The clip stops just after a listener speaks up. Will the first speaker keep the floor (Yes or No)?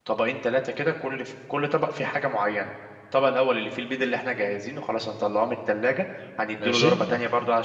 Yes